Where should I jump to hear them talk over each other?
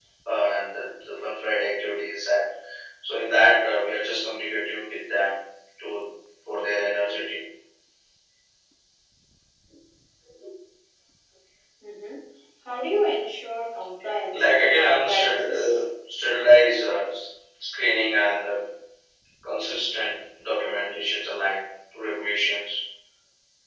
14 s

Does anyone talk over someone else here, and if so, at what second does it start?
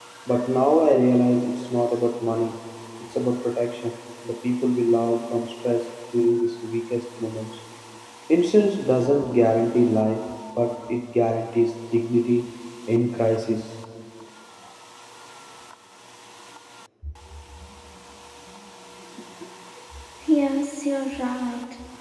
none

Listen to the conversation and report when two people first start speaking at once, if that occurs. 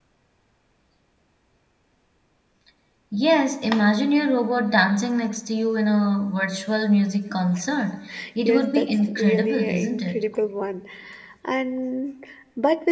8 s

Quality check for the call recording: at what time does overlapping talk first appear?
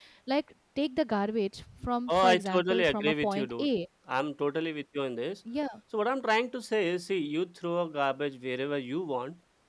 2 s

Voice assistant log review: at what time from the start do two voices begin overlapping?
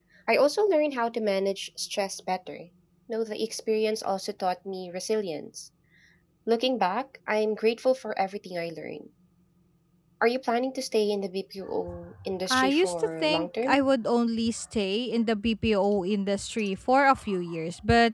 12 s

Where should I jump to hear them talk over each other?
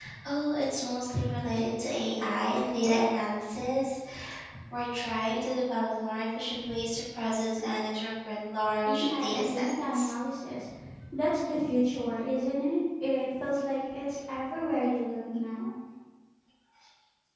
9 s

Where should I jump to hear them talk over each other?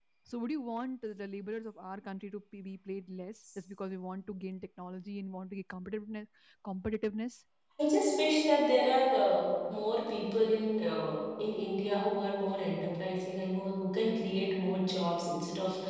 none

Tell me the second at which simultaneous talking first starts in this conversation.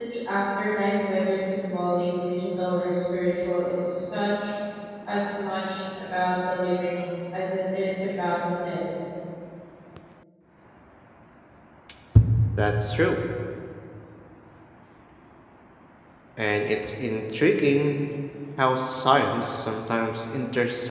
none

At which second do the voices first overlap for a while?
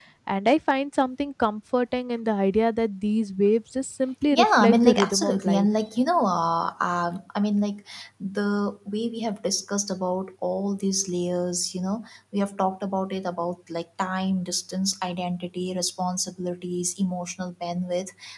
4 s

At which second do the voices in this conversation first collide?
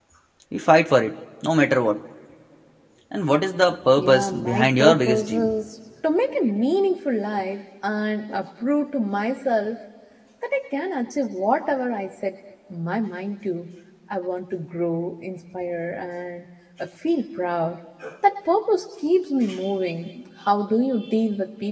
4 s

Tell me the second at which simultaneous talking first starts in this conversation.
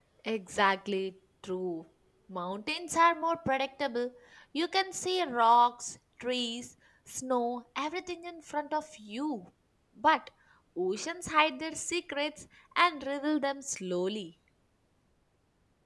none

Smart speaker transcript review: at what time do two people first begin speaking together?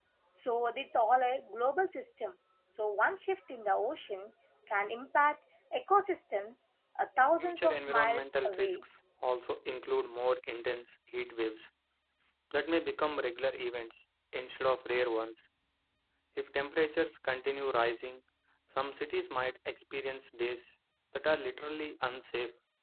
7 s

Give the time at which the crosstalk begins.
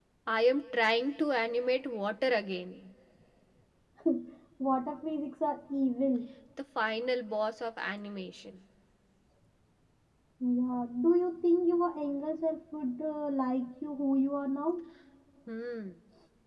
none

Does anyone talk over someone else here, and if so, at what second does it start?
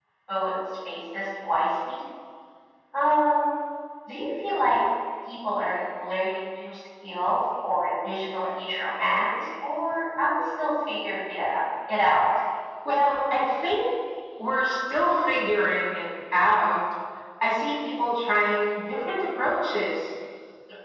none

